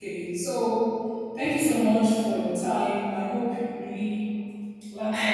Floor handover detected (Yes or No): Yes